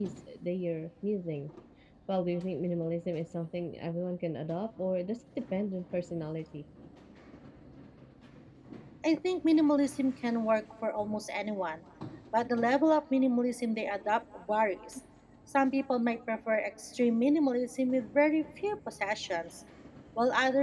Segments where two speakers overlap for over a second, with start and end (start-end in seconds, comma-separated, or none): none